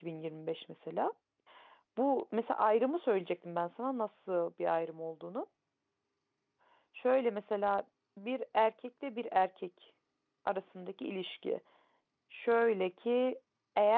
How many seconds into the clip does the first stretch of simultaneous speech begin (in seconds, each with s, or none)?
none